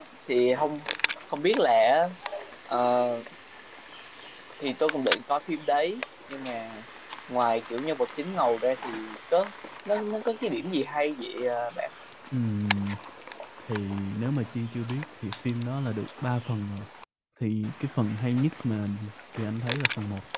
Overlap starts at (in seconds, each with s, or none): none